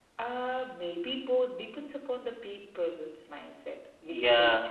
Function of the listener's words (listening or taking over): taking over